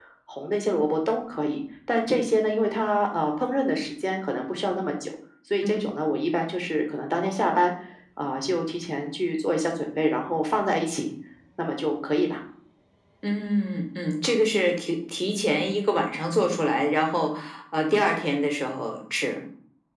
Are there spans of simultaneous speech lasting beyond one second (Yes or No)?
No